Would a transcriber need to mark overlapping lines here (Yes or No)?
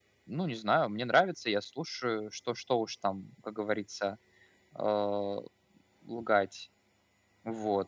No